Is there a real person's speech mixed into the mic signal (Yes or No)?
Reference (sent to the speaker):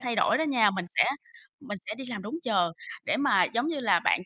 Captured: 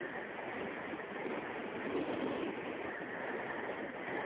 No